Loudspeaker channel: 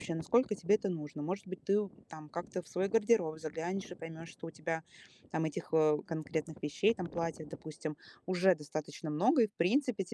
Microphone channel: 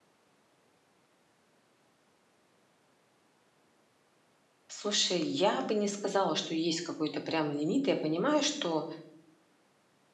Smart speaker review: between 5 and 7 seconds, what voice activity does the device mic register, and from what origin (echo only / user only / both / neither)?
user only